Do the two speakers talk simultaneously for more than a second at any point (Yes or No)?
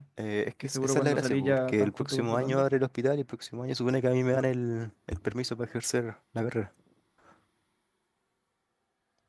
Yes